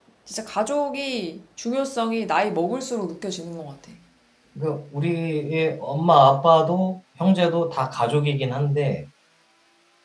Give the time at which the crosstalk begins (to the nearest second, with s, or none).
none